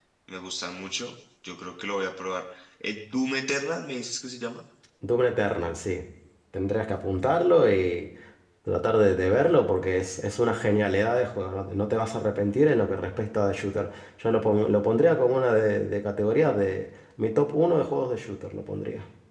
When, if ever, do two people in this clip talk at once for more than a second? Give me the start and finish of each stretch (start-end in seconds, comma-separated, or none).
none